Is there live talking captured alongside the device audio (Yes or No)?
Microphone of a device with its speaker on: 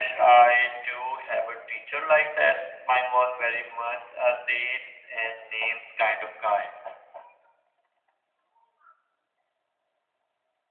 No